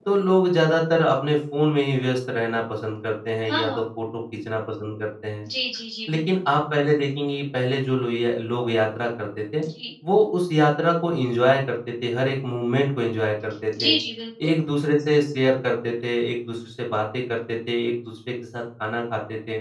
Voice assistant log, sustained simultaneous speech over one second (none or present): none